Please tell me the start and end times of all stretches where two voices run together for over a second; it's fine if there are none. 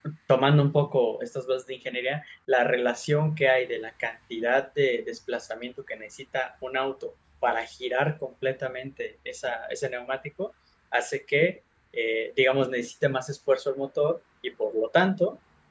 none

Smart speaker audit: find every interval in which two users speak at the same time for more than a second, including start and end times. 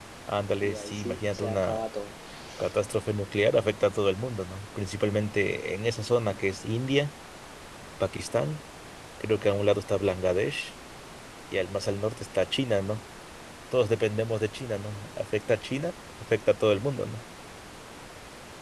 0.6-1.8

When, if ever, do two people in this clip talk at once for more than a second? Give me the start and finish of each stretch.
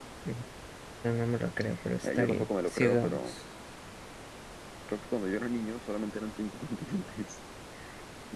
2.0-3.3

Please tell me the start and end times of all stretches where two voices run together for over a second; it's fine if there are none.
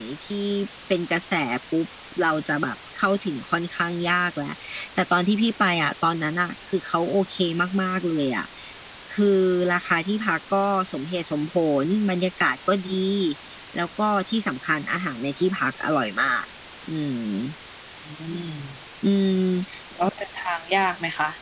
none

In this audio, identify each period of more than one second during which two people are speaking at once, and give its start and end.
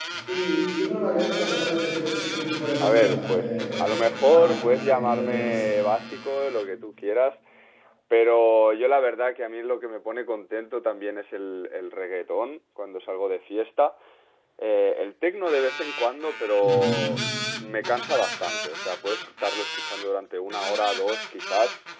2.8-5.6

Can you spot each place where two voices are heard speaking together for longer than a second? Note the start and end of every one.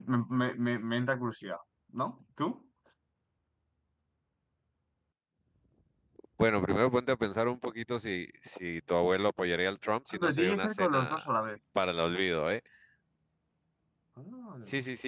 10.1-11.3

